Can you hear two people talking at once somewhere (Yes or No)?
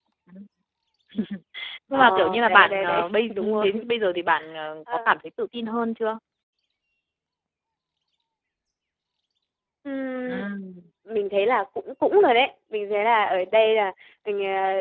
Yes